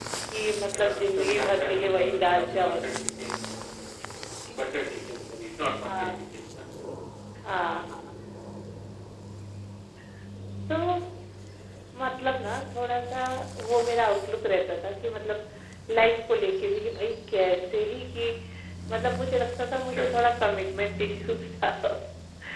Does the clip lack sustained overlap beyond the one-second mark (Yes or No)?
No